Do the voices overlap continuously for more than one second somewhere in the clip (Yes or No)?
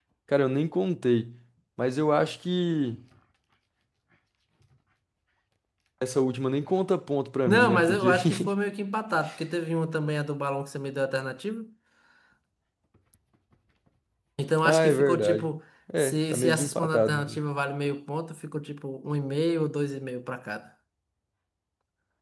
Yes